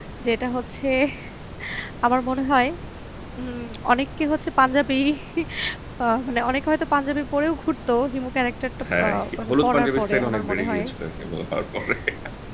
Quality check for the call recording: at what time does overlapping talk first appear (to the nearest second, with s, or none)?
9 s